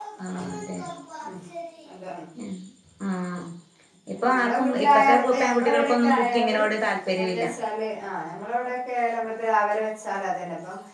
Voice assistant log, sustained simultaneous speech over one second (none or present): present